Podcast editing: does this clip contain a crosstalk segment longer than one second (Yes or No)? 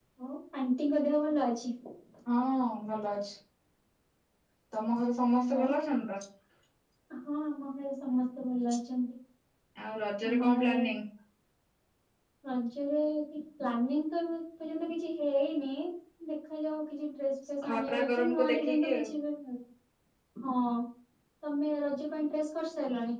Yes